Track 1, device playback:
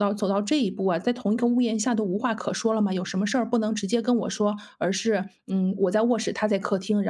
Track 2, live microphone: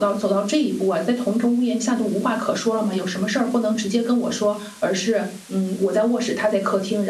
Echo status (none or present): present